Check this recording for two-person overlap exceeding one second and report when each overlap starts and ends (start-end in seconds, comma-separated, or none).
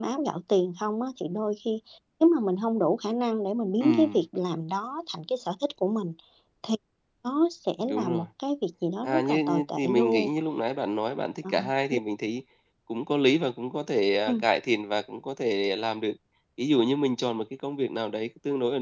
9.0-10.3